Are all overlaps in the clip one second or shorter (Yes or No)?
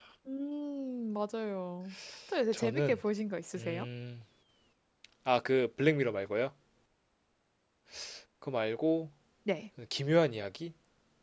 Yes